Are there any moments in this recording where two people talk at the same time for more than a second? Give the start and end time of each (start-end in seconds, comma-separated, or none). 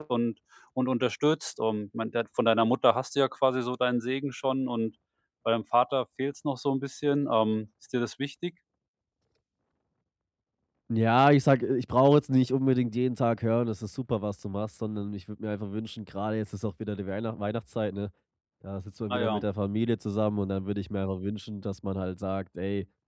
none